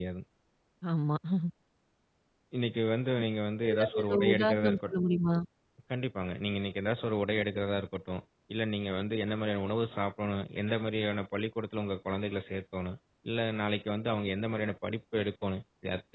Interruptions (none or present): present